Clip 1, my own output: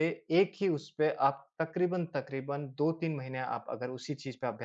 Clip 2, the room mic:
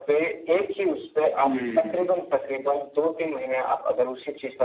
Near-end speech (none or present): present